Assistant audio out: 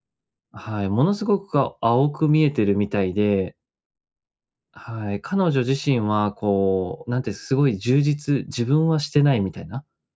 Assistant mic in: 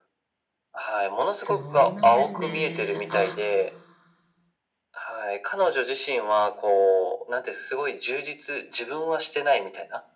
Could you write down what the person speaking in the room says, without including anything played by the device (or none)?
そうなんですね。あ。